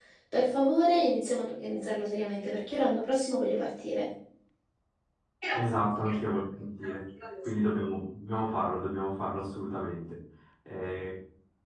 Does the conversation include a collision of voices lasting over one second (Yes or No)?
No